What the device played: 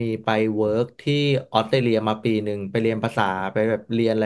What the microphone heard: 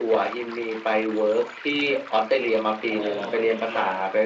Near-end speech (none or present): present